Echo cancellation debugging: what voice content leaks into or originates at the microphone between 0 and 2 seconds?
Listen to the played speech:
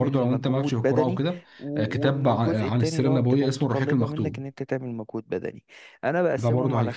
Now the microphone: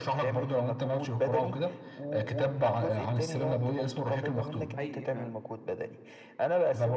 echo only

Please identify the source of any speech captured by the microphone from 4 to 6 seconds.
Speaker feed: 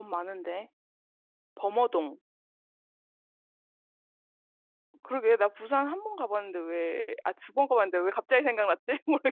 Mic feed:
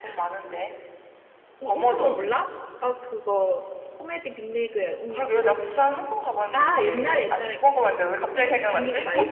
both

